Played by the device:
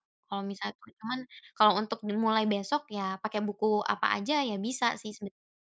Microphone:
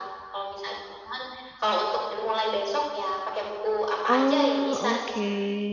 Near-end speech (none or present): present